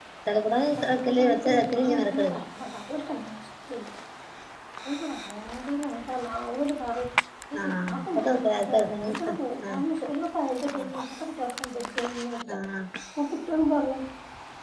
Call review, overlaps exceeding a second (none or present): present